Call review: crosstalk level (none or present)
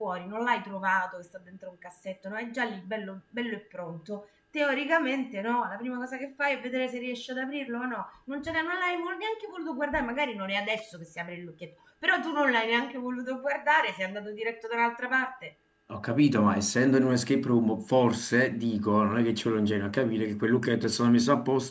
none